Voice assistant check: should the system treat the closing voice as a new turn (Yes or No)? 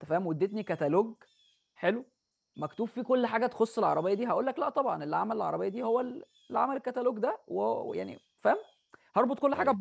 No